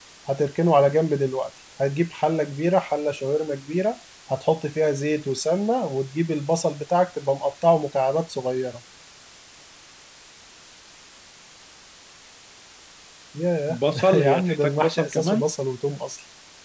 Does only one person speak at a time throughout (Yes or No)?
No